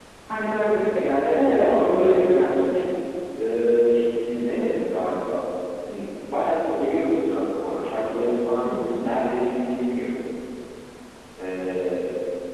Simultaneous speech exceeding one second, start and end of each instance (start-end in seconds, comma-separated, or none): 1.2-2.5